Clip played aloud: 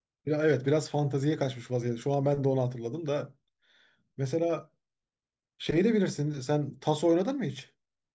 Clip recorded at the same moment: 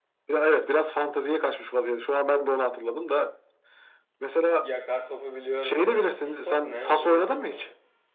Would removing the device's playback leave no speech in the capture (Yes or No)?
No